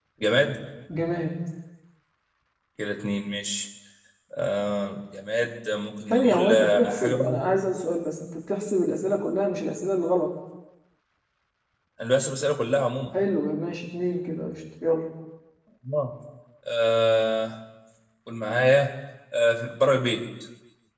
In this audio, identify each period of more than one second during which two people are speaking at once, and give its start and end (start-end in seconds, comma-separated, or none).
6.1-7.4